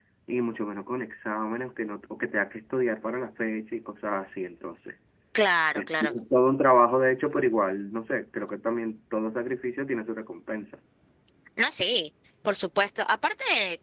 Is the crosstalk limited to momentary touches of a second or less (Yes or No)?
Yes